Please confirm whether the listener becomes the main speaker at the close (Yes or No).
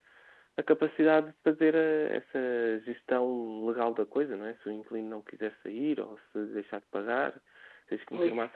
No